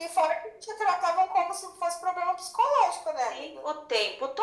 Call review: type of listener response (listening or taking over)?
taking over